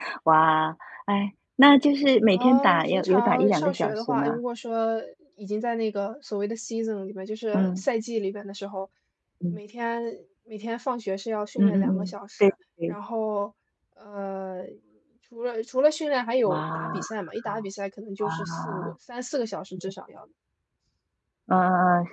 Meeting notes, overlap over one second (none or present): present